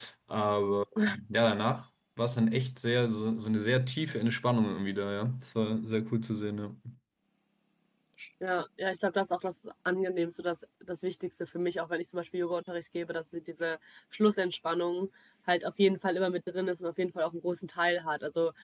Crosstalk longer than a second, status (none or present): none